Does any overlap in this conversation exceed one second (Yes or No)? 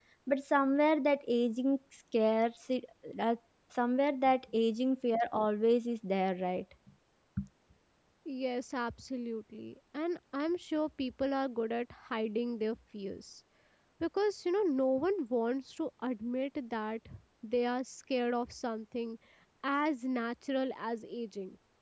No